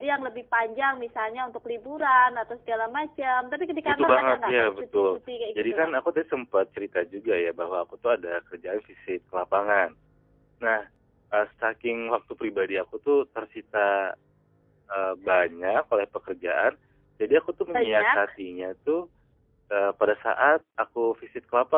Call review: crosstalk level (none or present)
present